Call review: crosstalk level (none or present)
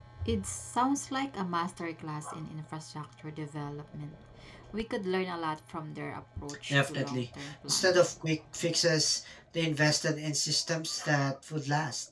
present